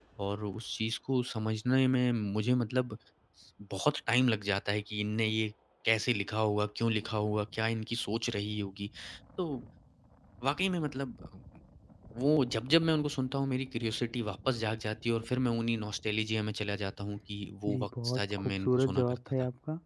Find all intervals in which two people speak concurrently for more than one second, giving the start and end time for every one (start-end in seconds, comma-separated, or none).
17.7-19.2